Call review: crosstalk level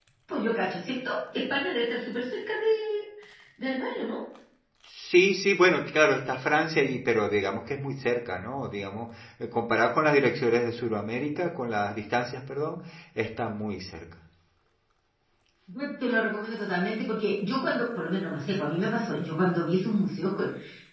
none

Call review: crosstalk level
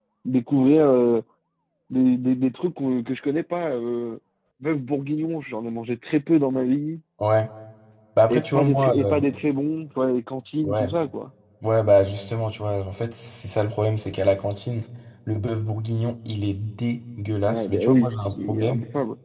present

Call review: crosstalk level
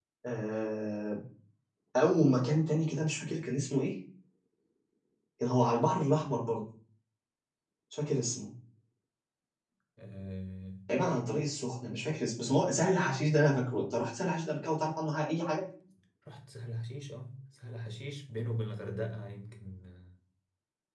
none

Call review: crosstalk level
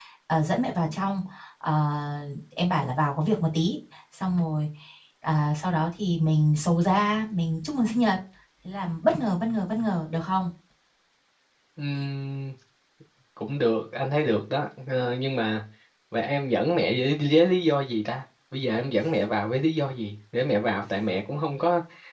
none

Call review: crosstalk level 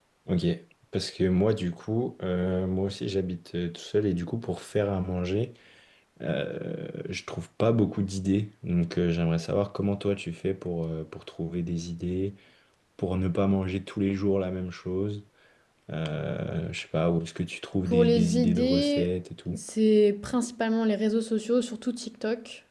present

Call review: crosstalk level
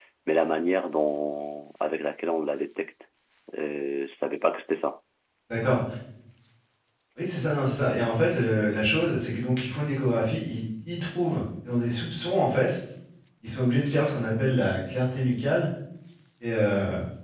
none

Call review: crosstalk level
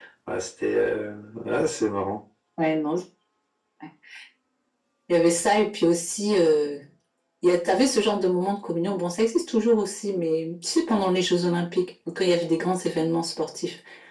none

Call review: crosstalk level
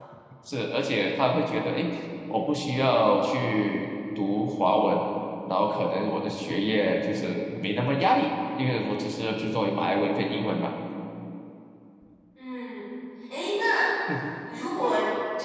none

